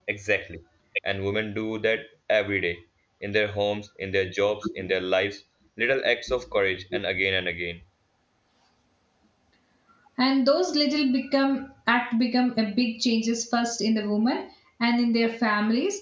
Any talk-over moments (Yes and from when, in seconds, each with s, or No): No